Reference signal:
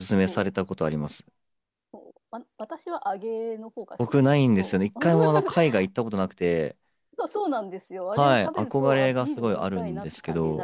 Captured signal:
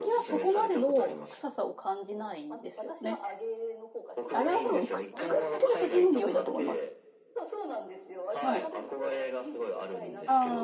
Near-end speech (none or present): present